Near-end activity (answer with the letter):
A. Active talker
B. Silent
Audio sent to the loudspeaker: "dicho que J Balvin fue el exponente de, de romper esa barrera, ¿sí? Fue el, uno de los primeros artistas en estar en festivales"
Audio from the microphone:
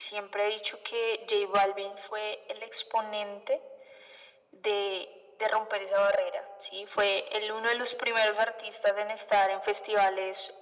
B